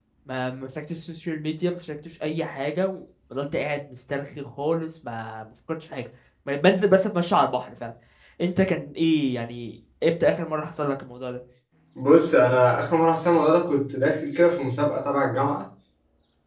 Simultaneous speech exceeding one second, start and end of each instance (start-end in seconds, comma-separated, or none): none